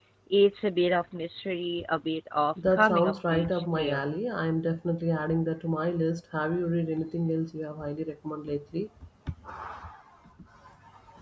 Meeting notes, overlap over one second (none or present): present